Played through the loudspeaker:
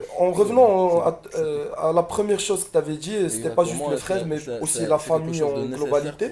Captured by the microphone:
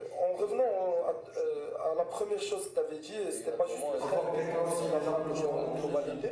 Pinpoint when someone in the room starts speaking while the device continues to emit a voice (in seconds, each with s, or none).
4.0 s